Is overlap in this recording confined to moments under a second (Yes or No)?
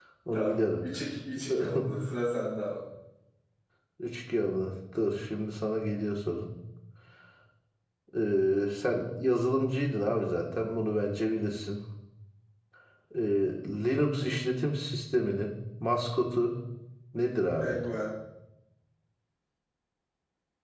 Yes